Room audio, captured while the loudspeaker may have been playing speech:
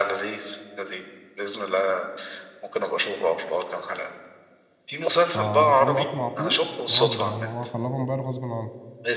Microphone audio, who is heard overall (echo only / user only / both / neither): both